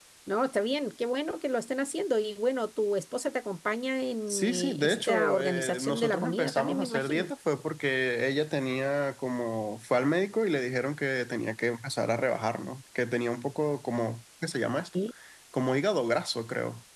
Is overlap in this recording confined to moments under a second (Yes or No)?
No